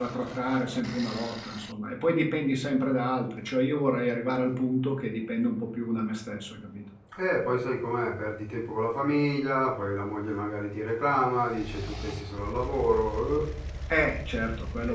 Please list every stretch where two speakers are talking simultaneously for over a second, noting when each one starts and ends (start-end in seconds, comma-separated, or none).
none